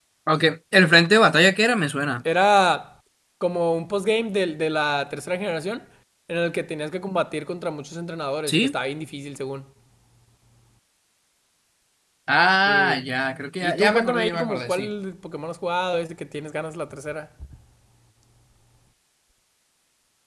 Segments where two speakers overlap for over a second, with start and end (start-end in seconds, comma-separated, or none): 13.6-14.9